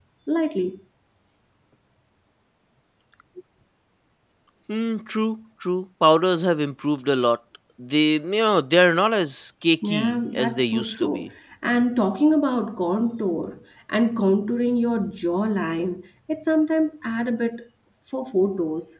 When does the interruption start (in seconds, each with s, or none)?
9.8 s